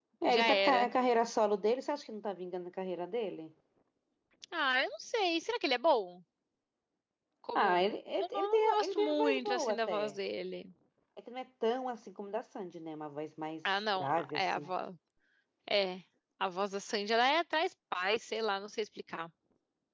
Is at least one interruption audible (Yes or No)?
Yes